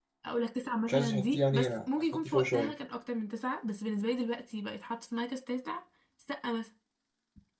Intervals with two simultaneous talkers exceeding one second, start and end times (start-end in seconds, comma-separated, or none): 0.9-2.7